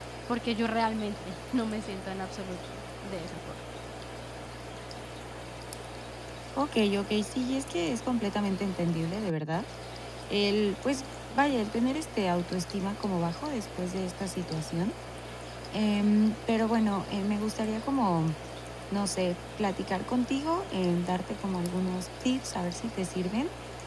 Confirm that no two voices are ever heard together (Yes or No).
Yes